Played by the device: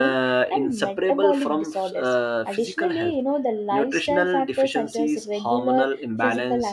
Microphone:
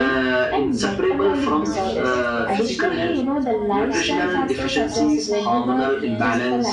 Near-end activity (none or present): present